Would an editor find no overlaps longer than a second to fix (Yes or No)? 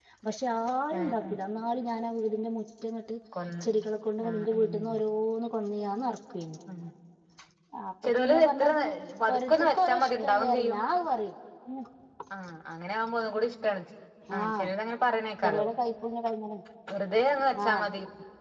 No